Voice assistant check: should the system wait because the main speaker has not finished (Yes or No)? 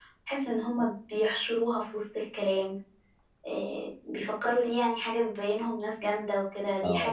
No